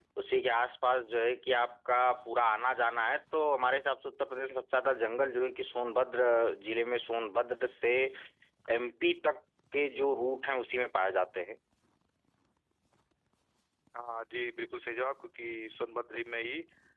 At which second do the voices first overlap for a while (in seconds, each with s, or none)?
none